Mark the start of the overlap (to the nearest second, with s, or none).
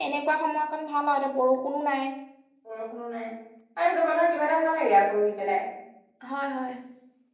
none